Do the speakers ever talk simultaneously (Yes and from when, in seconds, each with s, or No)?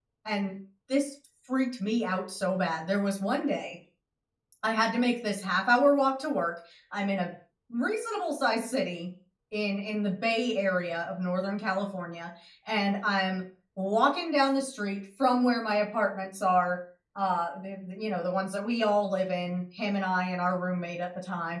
No